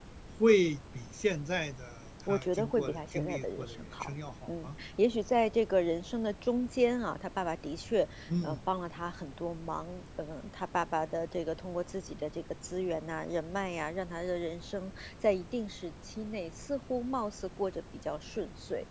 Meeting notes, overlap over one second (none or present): present